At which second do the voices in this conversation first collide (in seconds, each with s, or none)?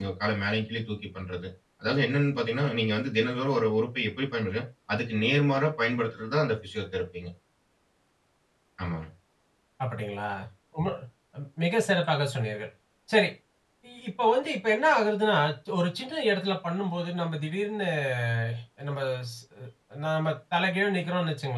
none